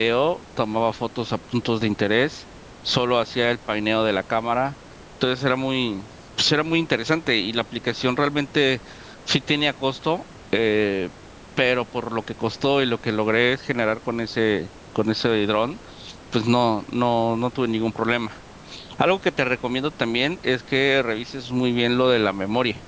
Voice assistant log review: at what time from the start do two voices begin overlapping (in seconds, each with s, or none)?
none